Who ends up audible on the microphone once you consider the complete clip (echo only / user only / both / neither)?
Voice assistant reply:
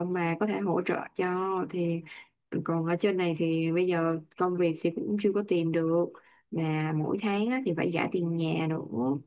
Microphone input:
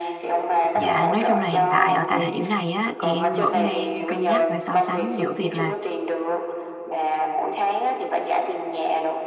both